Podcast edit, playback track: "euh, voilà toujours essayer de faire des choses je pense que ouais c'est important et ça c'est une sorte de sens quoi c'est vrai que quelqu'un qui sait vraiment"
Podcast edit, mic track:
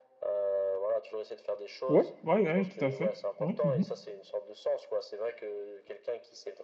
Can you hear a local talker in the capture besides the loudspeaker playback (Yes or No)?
Yes